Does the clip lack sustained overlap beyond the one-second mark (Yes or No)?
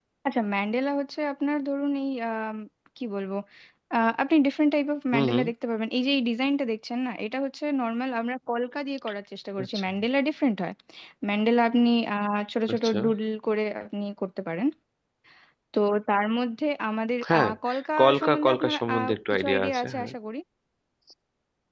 No